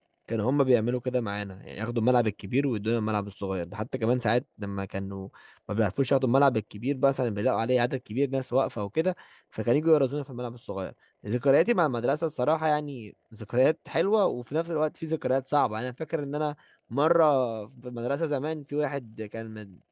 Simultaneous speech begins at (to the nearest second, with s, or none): none